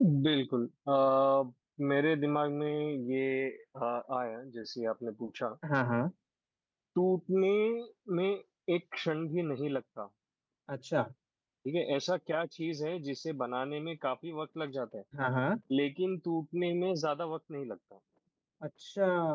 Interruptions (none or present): none